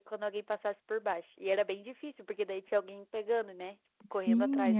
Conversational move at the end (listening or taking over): taking over